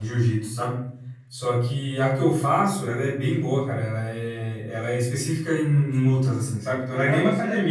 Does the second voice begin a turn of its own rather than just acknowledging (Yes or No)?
No